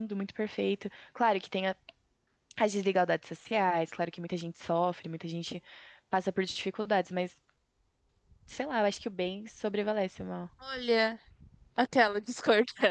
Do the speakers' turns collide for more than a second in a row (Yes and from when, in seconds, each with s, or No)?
No